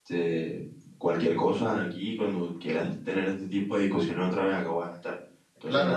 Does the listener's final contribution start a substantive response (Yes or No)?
No